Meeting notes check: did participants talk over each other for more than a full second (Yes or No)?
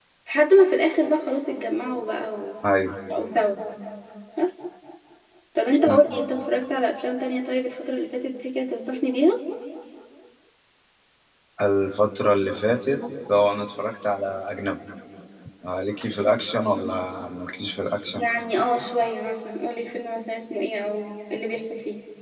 No